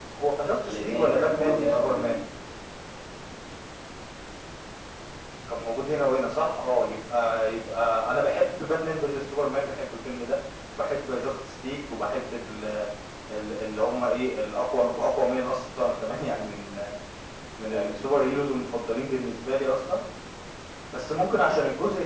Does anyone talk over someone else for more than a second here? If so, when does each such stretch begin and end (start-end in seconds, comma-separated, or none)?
0.7-2.0